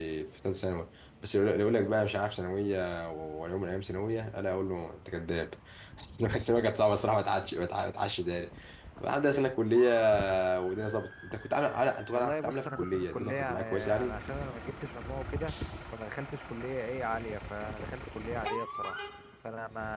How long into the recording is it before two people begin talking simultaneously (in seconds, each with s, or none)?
12.1 s